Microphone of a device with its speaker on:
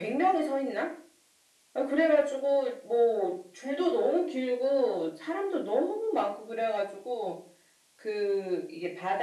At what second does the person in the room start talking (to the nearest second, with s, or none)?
none